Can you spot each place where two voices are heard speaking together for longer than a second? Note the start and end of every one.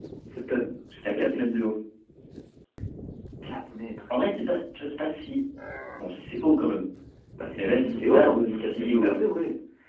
7.6-9.1

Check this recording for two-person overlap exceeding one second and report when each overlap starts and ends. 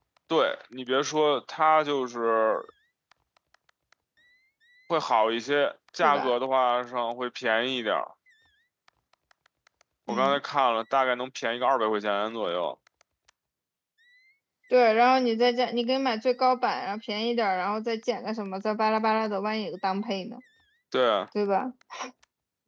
none

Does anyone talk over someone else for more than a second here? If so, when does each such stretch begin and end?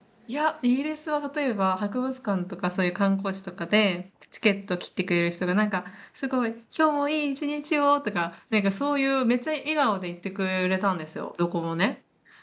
none

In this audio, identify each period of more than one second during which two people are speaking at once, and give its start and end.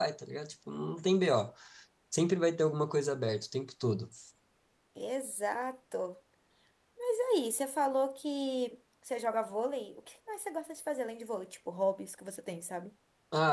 none

